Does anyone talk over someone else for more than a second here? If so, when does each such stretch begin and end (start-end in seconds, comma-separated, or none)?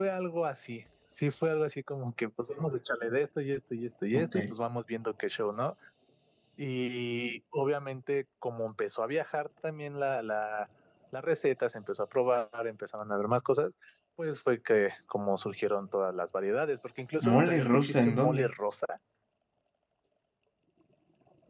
17.2-18.5